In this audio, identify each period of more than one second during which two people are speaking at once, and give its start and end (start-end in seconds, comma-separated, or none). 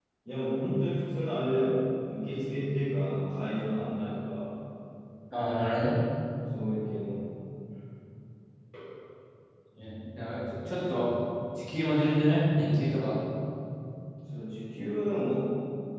none